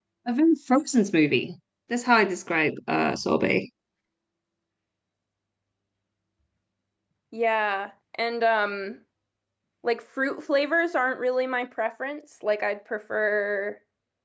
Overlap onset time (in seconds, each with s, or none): none